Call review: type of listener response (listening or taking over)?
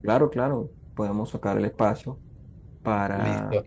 listening